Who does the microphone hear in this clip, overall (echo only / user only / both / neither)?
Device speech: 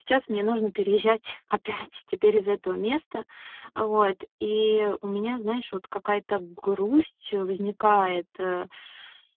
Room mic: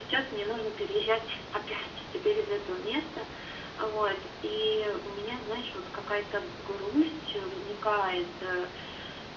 echo only